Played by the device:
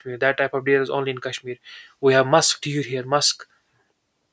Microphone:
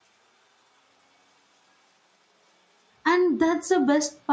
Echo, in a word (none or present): none